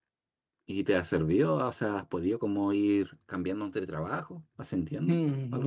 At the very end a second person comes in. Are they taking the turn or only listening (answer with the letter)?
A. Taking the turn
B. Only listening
A